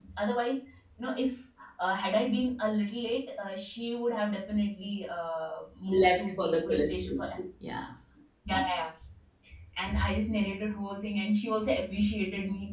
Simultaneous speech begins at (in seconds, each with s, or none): 5.9 s